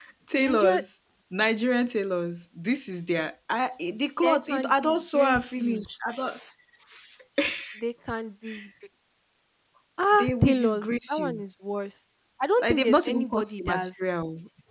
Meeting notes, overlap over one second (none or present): present